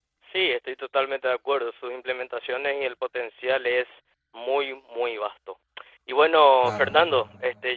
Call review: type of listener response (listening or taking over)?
listening